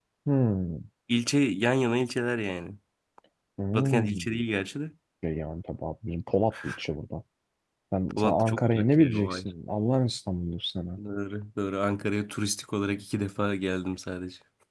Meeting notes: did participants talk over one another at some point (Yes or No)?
Yes